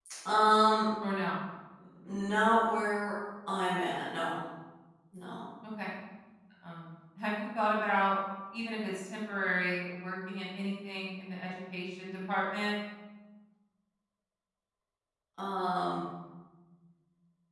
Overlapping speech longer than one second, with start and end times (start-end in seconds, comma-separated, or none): none